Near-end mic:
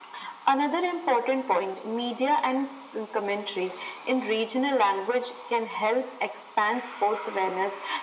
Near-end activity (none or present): none